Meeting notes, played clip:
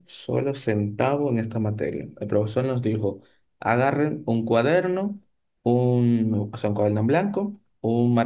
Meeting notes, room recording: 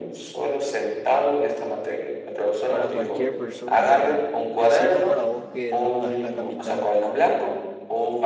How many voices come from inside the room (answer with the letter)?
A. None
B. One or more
B